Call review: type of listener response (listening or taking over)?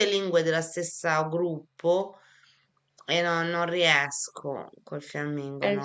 taking over